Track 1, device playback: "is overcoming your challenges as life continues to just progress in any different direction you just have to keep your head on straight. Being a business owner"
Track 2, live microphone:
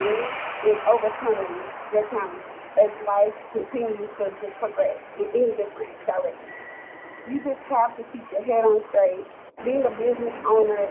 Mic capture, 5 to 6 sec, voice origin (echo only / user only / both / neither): echo only